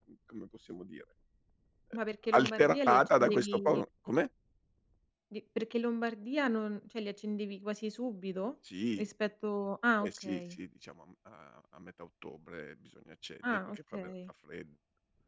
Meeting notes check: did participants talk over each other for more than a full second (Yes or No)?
Yes